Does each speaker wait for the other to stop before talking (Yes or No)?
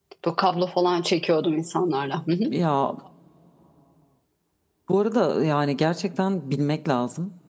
Yes